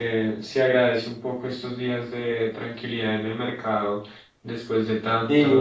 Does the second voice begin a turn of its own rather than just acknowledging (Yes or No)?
Yes